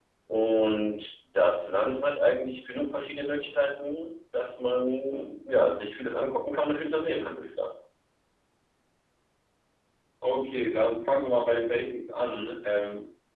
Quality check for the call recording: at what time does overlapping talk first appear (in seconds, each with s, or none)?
none